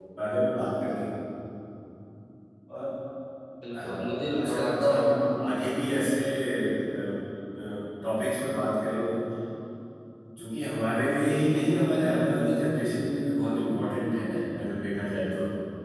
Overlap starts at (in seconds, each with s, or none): 3.7 s